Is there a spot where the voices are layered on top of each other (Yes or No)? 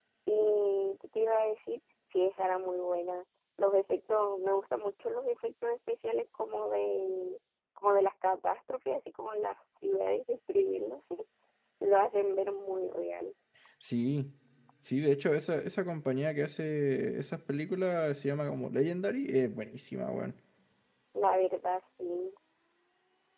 No